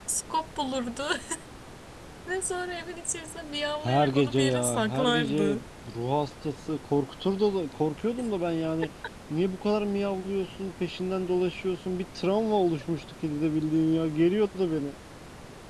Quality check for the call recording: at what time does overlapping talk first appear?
4 s

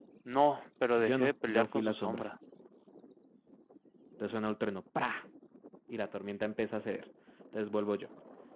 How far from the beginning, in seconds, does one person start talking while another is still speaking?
1 s

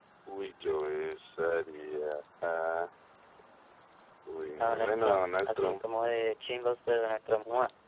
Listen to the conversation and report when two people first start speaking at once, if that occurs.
5 s

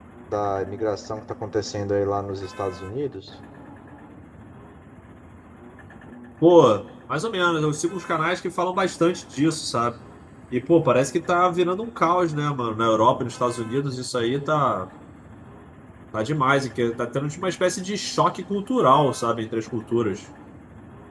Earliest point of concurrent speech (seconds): none

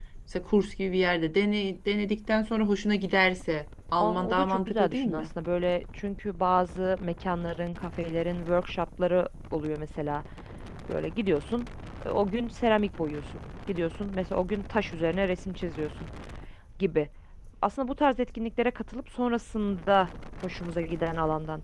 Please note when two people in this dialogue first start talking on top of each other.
4 s

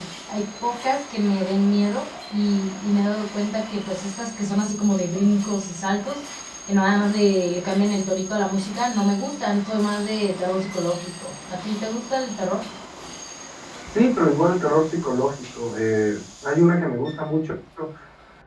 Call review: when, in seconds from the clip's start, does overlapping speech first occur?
none

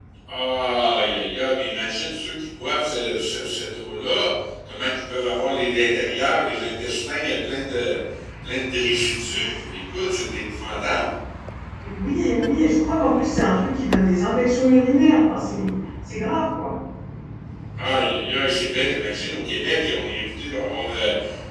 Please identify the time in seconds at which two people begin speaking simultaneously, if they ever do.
none

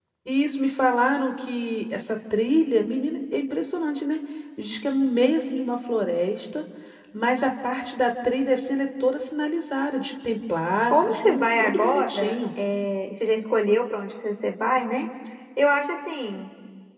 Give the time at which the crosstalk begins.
11 s

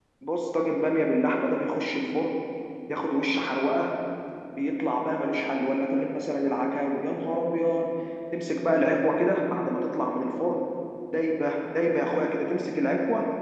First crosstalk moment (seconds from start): none

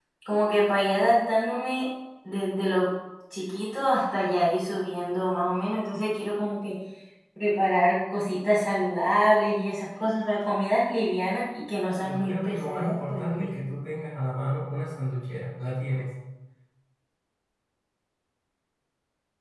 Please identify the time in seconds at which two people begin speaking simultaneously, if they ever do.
12 s

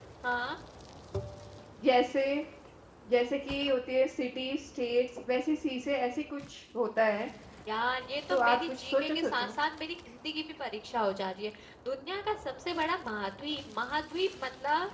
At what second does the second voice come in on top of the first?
8 s

